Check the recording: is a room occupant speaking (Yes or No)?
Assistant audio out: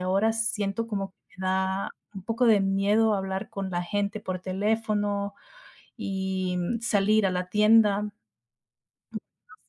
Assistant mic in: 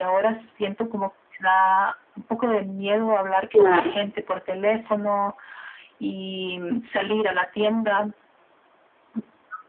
Yes